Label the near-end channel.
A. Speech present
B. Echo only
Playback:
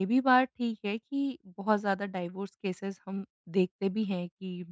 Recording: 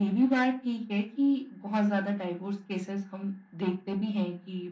B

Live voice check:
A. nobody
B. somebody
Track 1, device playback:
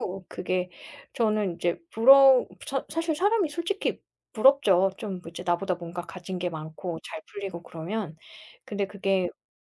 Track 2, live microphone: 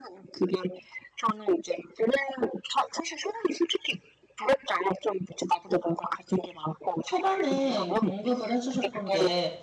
B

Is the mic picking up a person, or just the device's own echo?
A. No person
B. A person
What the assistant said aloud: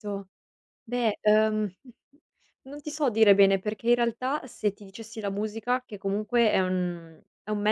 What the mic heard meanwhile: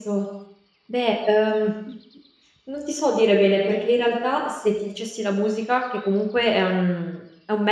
A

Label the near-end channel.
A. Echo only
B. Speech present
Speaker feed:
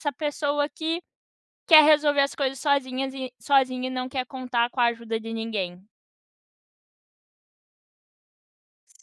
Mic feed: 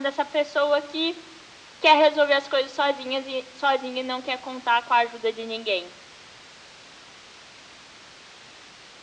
A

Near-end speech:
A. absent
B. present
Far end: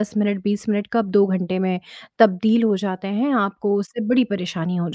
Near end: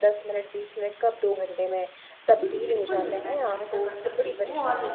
B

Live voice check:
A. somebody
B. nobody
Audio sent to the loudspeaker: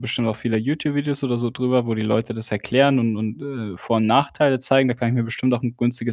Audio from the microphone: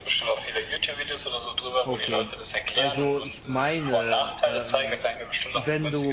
A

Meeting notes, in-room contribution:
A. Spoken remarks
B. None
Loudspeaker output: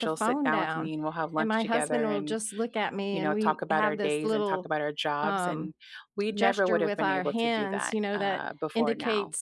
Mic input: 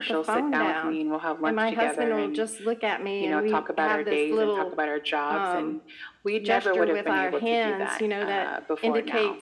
B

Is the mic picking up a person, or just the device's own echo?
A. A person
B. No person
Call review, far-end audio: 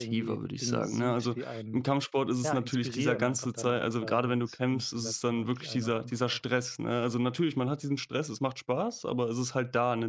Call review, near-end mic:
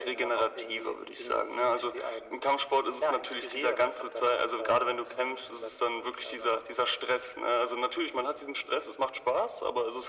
B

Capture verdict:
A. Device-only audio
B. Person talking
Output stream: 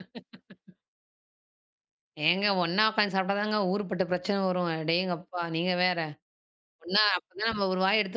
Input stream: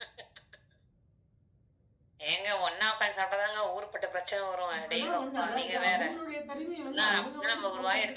B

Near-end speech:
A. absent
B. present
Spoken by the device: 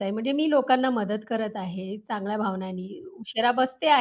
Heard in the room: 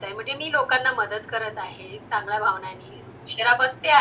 A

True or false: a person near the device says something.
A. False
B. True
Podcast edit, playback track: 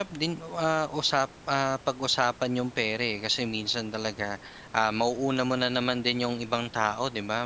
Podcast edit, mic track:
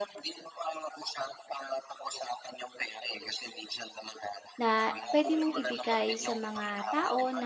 B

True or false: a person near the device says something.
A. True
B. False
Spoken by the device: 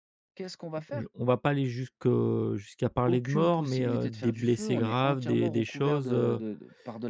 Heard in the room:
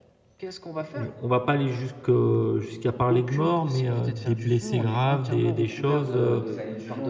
A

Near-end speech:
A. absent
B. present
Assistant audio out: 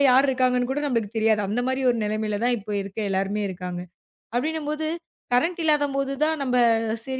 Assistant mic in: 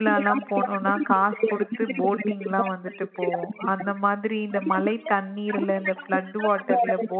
B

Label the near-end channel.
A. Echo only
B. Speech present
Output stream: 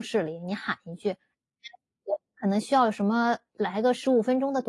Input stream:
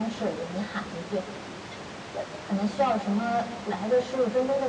A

